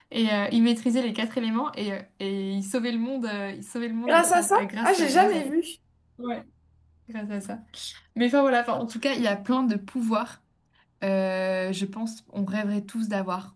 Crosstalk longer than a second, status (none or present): present